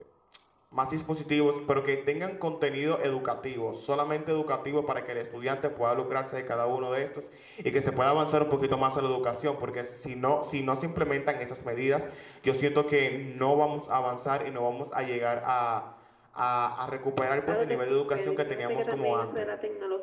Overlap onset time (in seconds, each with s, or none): 17.5 s